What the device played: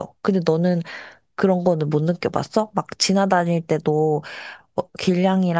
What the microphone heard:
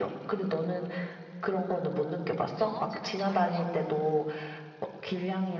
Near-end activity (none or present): present